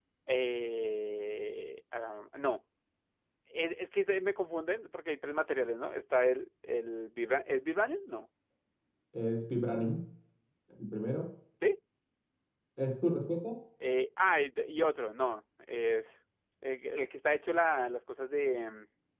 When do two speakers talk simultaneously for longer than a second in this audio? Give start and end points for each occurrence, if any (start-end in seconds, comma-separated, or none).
none